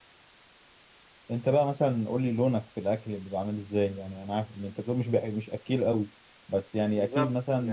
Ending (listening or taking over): listening